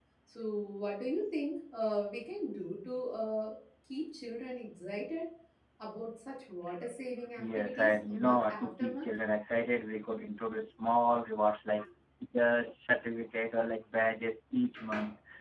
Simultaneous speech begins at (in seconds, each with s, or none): 7.4 s